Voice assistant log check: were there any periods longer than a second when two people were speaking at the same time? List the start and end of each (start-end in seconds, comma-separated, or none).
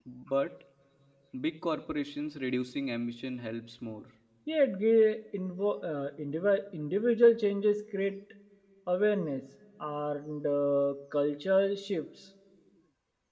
none